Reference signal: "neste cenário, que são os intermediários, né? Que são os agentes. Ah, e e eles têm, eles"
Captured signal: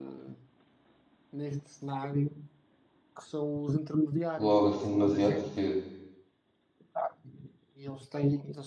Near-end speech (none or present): present